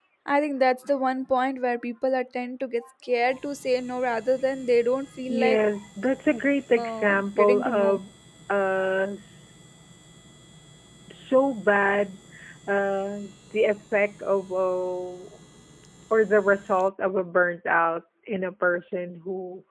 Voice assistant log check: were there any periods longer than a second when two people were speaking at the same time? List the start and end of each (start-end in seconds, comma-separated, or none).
6.8-8.0